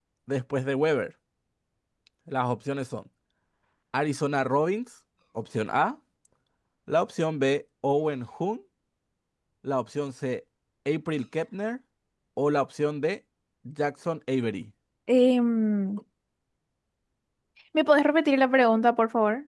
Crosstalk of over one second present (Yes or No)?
No